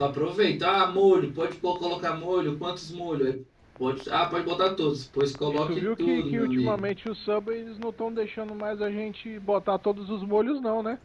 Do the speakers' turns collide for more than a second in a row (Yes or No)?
Yes